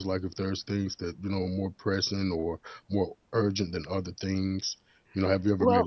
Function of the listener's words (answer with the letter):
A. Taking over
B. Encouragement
A